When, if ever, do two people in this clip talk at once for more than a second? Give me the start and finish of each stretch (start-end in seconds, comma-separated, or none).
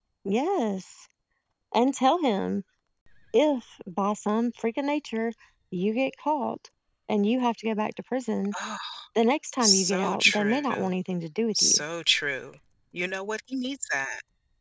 9.6-10.9